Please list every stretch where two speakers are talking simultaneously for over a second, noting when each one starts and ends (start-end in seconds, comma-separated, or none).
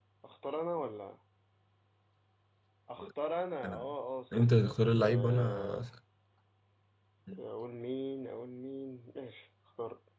4.3-5.8